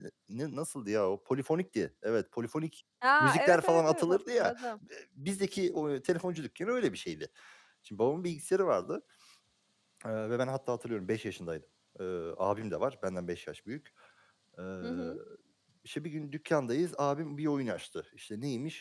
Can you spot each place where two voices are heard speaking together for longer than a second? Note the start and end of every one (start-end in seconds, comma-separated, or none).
3.2-4.5